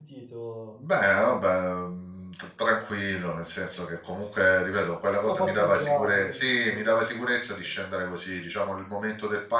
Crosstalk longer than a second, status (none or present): present